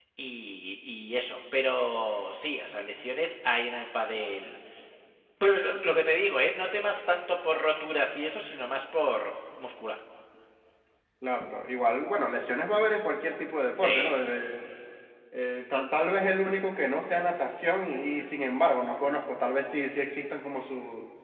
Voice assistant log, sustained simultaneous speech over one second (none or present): none